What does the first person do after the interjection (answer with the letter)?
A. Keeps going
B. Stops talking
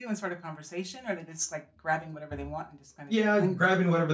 B